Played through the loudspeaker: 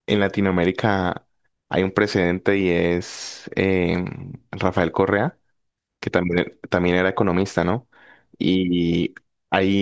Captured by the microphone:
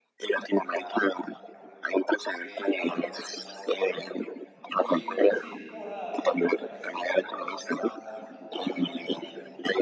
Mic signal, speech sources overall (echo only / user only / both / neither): both